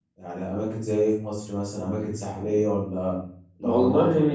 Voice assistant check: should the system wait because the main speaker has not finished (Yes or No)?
No